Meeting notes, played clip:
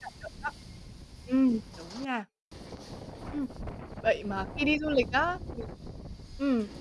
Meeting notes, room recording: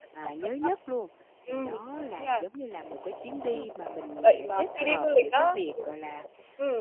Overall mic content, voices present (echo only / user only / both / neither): both